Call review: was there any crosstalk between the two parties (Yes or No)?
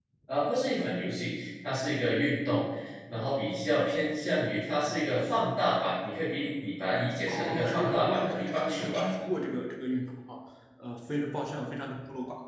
Yes